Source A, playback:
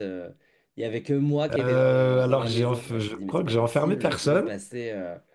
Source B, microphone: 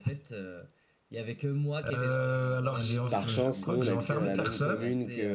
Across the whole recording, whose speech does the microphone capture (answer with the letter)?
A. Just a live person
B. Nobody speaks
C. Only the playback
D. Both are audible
D